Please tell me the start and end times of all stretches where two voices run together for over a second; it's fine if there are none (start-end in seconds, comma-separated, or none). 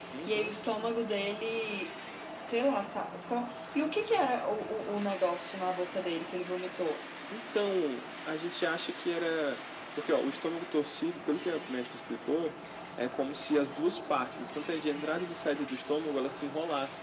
none